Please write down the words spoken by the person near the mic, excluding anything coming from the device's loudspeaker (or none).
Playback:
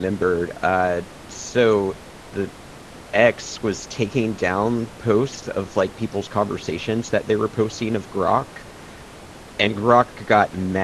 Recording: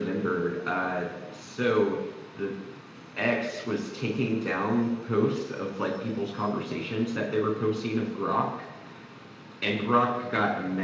none